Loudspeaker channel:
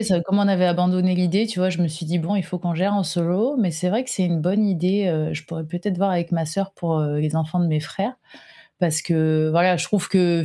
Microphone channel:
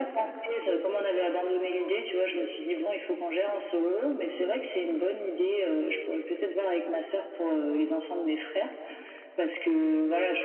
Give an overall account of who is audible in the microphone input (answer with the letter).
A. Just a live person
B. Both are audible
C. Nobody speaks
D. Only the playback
D